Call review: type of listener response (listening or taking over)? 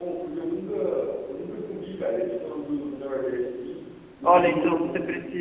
taking over